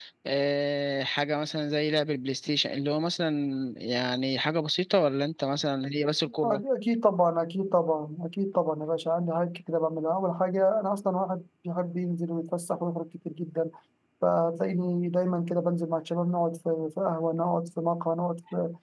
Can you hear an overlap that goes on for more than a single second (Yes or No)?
No